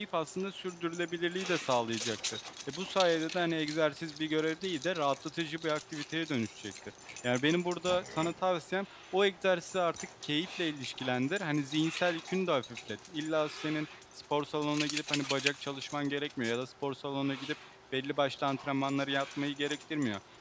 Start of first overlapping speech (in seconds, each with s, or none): none